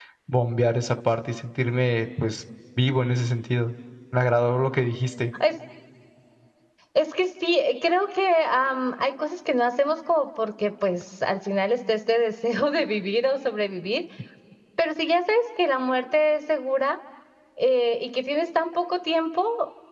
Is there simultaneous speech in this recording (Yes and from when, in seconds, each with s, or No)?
No